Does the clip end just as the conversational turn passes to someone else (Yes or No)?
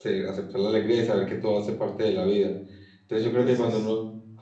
No